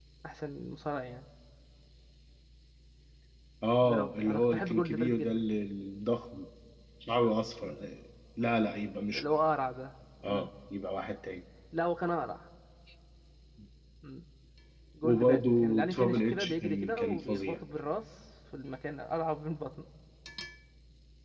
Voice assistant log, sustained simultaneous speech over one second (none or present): present